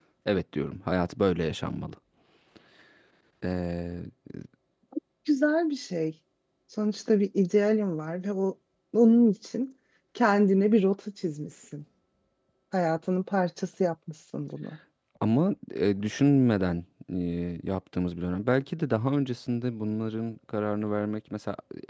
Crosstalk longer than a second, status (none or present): none